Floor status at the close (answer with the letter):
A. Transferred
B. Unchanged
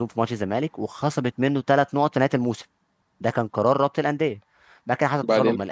B